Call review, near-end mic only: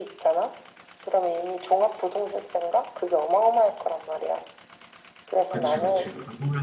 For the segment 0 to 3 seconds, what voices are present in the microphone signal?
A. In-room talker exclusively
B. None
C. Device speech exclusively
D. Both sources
C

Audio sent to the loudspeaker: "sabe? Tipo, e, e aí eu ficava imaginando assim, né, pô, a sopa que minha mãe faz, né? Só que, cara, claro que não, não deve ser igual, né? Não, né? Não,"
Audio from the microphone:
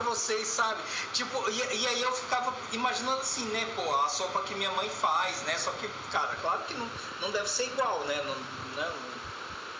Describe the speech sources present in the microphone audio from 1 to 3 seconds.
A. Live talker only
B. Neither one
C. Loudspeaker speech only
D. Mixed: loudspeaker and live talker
C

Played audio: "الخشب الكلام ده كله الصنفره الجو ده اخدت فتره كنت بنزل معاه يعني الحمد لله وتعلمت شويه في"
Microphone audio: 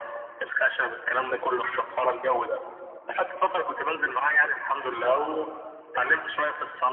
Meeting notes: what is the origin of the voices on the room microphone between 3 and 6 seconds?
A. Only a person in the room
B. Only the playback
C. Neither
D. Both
B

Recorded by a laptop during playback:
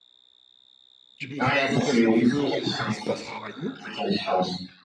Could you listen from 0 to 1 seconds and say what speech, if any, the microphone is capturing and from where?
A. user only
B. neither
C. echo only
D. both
B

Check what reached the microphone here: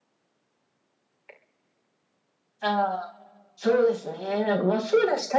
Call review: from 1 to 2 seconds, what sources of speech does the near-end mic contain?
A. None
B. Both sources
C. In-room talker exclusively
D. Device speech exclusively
A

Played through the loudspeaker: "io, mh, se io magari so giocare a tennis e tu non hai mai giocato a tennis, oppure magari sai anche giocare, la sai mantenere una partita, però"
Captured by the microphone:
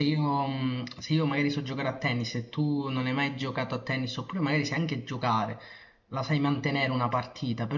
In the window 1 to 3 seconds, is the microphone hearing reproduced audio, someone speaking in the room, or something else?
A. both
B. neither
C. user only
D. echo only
D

